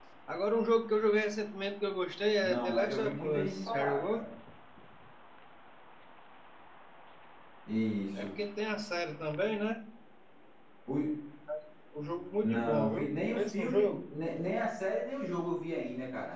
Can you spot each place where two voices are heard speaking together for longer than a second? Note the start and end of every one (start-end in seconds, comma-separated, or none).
2.4-4.3, 12.4-14.0